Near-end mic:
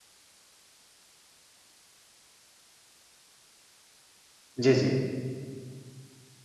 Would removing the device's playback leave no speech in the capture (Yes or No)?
No